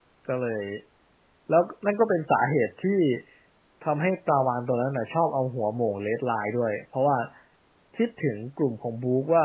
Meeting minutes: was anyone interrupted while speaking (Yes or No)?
No